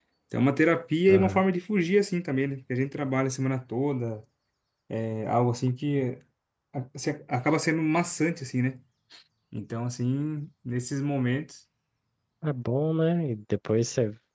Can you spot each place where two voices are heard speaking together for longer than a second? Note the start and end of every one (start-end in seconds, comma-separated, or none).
none